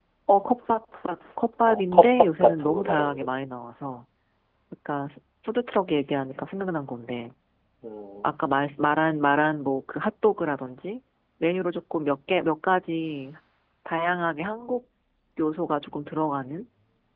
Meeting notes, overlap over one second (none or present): present